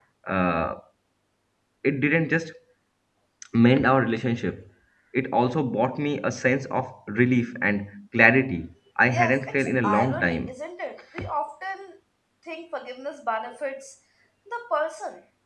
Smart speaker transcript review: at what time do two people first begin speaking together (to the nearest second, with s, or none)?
9 s